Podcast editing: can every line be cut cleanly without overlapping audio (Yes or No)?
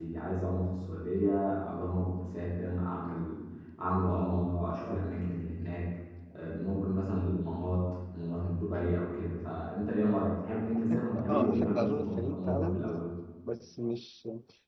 No